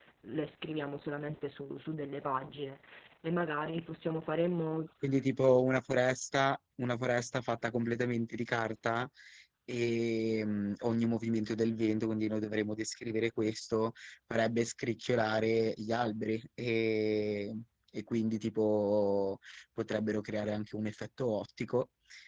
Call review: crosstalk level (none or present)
none